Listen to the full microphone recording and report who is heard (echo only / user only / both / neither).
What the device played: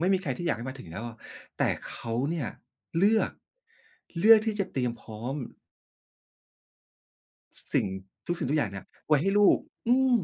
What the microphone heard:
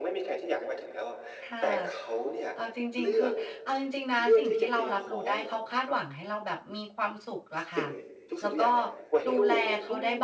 both